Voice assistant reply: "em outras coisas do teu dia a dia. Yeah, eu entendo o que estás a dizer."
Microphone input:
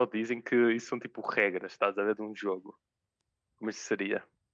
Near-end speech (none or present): present